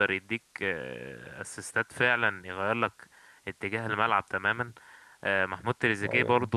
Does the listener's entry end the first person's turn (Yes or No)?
No